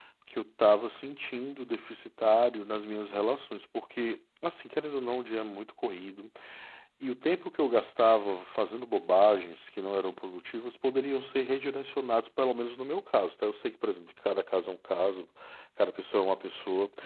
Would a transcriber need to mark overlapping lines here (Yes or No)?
No